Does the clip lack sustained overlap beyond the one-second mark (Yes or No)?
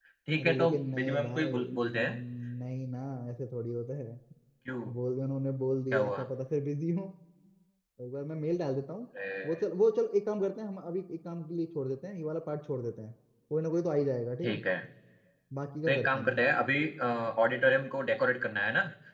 No